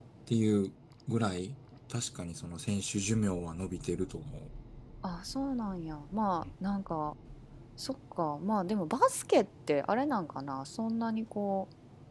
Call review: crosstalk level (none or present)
none